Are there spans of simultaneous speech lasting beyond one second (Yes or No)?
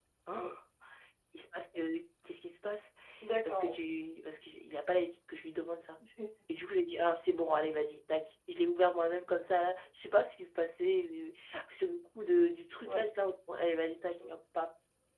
No